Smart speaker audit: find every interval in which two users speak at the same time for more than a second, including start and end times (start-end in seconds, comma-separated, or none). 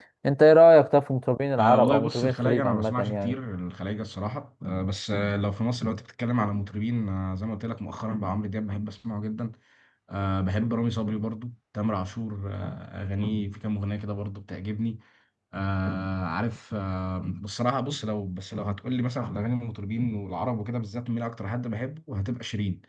1.6-3.4